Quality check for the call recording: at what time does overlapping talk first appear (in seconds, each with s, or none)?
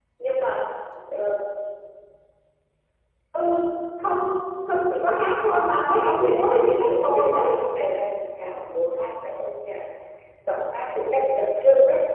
6.0 s